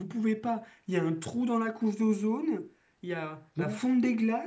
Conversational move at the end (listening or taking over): listening